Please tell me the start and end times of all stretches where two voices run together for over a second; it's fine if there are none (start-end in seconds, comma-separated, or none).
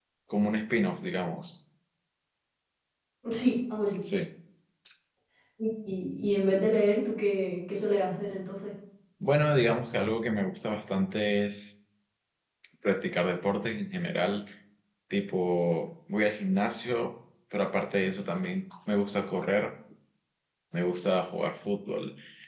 none